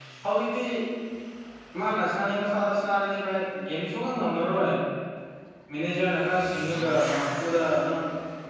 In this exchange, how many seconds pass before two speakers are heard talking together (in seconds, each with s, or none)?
none